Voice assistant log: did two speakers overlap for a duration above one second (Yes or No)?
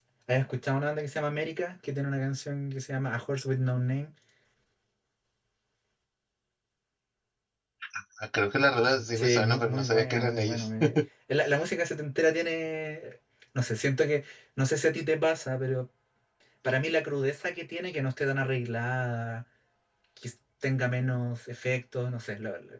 Yes